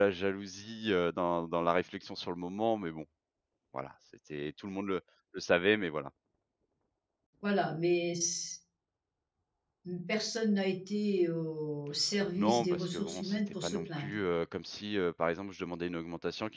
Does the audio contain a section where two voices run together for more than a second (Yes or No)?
Yes